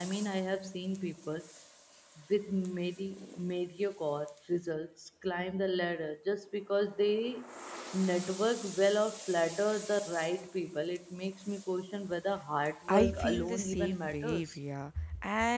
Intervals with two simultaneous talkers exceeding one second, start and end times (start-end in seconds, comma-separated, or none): 12.9-14.6